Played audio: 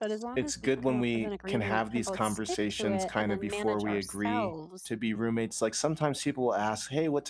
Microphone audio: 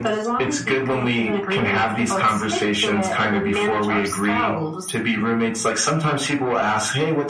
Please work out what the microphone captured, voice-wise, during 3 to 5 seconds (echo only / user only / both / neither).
echo only